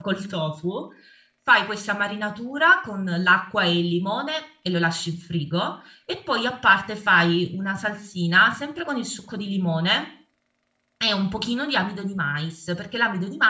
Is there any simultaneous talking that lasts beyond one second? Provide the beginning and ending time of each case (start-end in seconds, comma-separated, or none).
none